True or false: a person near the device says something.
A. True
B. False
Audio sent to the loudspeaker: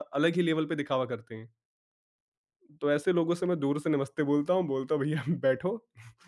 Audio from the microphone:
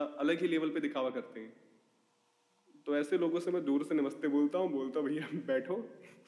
B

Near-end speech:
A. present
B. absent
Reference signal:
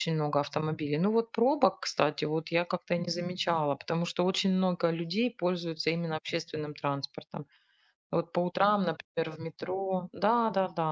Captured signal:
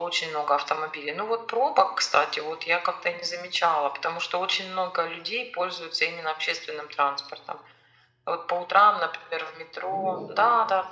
A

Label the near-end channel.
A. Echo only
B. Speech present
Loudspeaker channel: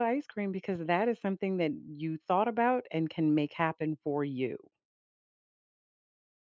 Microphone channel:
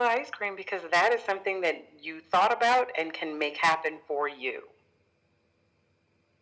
A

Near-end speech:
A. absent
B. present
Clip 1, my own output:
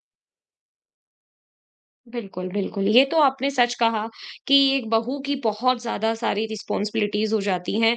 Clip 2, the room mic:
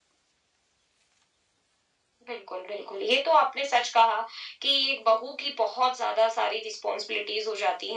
A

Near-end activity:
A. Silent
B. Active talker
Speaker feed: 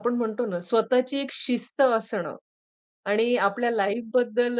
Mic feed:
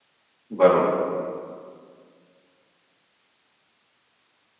B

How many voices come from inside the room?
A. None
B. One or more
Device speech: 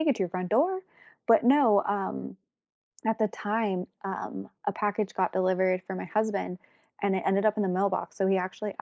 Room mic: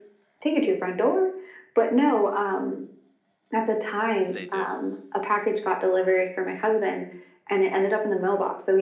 B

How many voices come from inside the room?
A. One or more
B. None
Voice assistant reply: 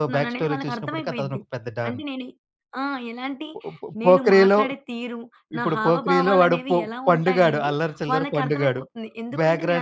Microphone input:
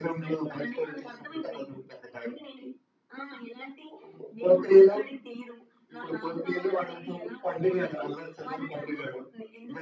B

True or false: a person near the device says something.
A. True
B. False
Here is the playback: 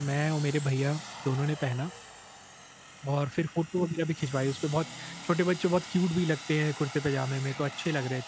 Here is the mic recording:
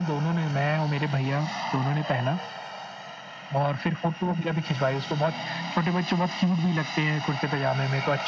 B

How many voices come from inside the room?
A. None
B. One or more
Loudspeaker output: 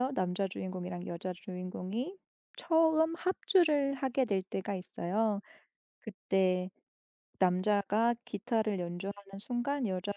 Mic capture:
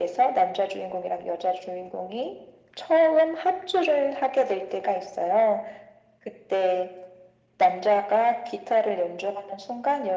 A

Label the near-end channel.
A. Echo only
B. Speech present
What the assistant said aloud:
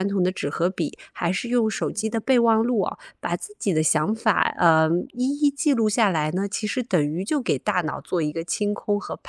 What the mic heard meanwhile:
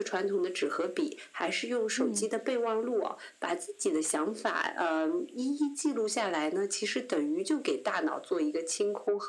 B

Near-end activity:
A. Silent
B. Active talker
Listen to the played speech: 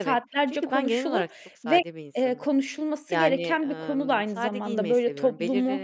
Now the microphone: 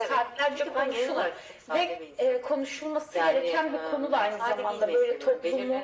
A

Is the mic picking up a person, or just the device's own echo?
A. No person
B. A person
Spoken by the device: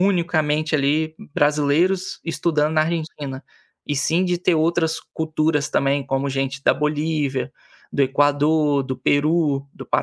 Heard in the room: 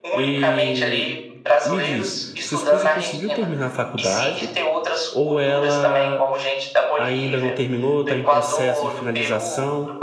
B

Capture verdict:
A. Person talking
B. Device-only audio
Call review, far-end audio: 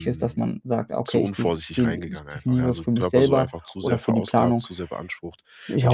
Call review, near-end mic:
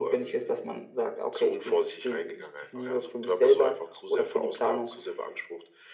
B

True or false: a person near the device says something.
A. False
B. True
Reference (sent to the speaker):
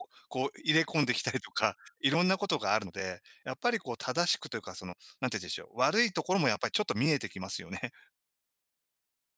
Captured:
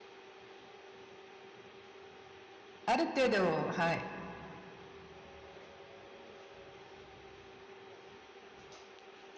B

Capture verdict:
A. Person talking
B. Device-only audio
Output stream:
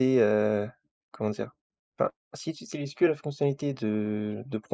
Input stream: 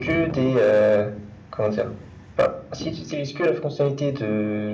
B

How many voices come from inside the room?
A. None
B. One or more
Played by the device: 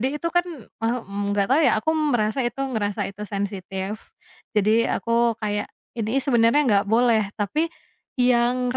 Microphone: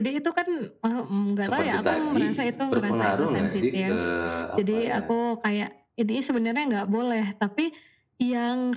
B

